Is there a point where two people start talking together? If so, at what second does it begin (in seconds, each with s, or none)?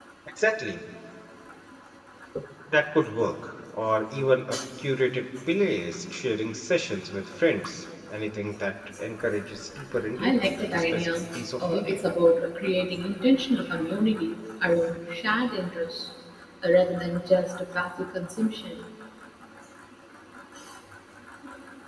10.2 s